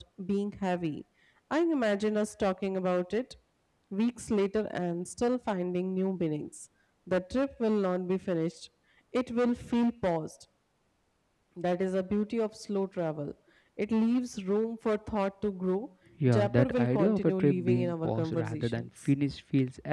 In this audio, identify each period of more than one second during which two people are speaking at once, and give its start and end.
16.3-18.9

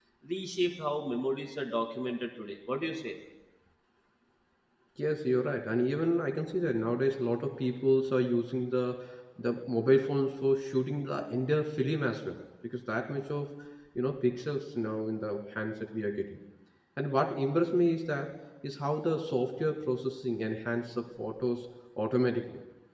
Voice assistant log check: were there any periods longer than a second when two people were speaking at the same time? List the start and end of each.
none

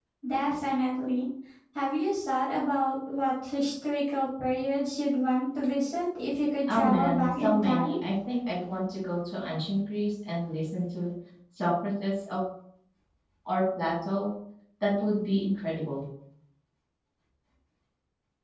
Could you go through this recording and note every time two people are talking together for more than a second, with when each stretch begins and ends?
6.7-7.9

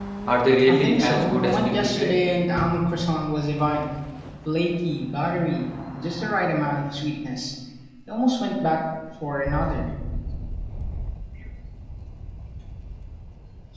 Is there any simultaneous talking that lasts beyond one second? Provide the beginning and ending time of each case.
0.7-2.1

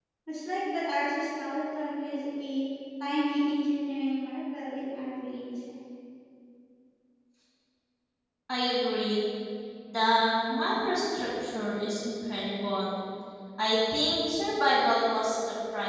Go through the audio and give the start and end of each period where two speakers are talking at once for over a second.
none

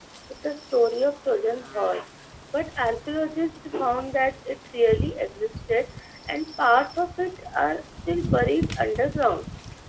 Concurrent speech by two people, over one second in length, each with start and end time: none

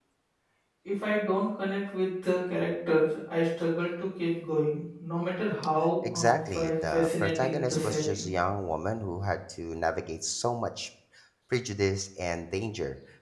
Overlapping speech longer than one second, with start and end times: 6.1-8.3

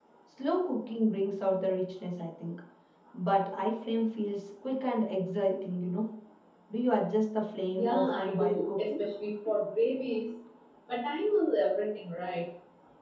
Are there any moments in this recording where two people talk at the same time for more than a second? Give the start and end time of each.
7.7-9.0

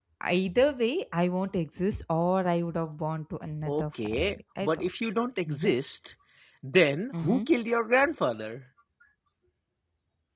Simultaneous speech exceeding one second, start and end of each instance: 3.7-4.9

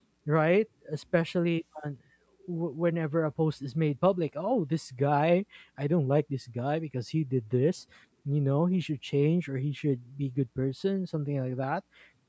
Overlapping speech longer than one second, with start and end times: none

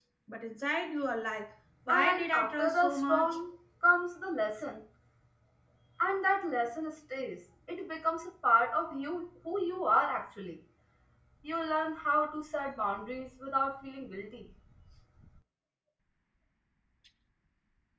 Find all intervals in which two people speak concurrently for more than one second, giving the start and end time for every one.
1.9-3.3

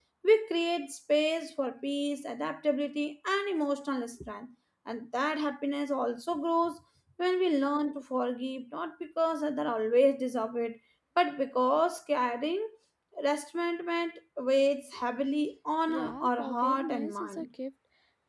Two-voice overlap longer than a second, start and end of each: 15.9-17.4

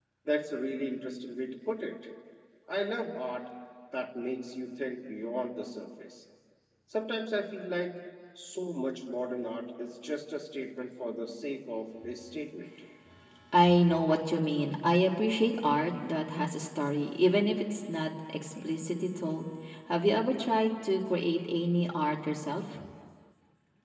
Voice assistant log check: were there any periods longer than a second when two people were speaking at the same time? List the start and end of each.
none

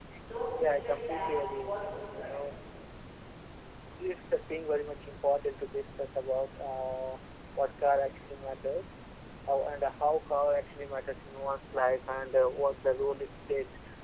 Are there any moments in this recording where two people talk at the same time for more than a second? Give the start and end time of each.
0.6-2.4

